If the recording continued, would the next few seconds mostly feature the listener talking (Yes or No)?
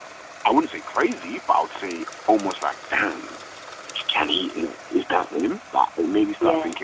No